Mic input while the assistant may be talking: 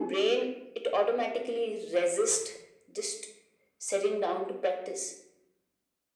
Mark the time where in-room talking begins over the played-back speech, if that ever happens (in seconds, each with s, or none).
none